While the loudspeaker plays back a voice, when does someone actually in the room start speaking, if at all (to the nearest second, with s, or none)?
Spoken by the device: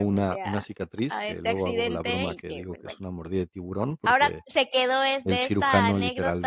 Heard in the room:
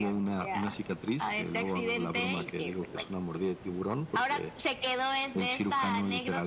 none